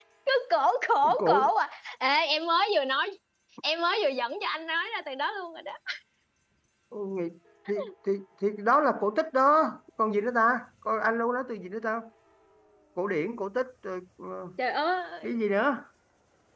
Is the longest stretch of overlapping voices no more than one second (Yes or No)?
Yes